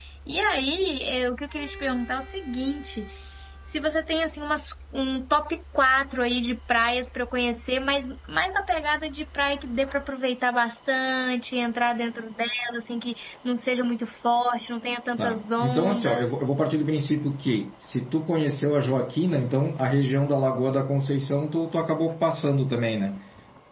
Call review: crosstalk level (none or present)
present